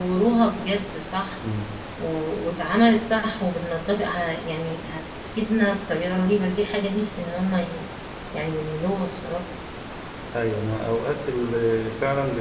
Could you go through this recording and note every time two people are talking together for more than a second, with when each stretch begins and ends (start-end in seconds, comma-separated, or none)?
none